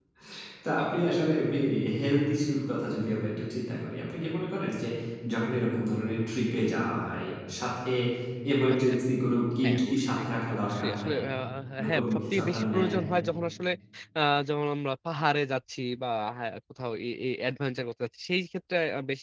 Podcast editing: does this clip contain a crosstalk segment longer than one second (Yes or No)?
Yes